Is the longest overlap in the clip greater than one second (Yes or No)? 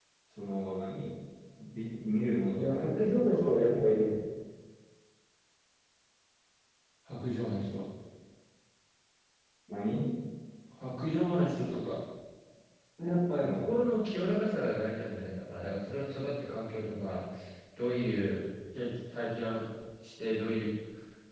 Yes